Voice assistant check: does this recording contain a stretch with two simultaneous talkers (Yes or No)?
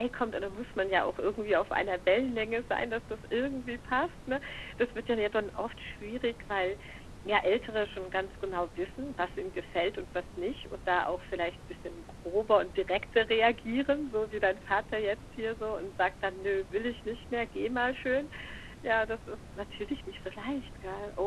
No